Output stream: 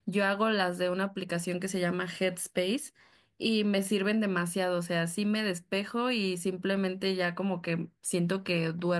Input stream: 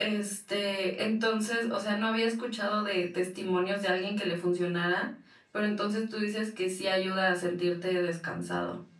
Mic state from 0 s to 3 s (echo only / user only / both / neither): user only